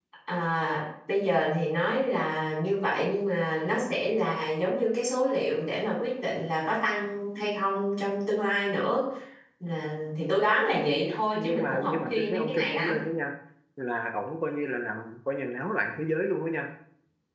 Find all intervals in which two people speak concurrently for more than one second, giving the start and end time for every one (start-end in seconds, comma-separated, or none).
11.3-13.0